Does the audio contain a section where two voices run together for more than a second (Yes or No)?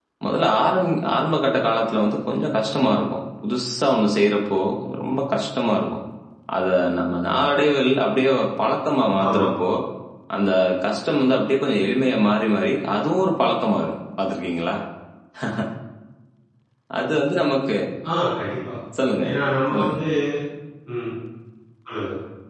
No